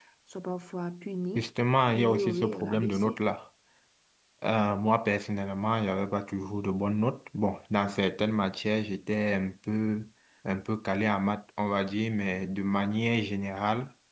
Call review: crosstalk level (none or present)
present